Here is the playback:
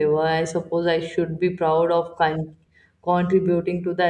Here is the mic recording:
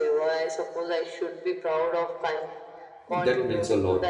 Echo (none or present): present